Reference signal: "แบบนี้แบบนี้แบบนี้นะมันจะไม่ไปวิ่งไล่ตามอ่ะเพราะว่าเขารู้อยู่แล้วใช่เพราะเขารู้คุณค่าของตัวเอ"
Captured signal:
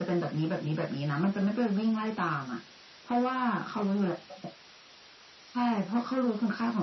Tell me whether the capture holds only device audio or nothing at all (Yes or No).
Yes